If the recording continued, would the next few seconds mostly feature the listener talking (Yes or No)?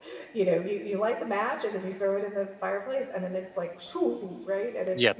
Yes